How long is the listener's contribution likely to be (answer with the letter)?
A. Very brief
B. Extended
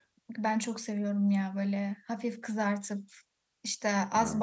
A